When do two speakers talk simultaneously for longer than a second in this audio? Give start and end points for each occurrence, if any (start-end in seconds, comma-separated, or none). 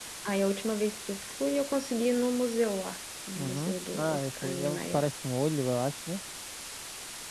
3.4-5.0